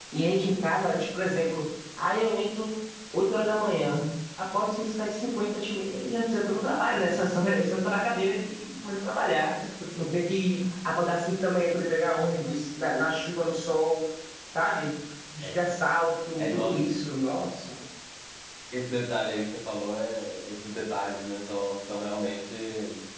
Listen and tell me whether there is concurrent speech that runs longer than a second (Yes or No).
No